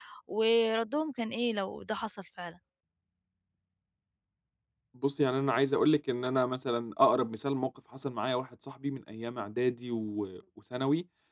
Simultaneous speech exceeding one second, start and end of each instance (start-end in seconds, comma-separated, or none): none